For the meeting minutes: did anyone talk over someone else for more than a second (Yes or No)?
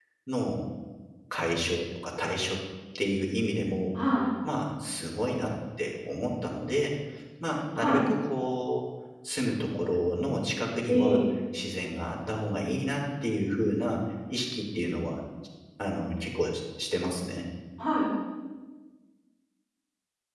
No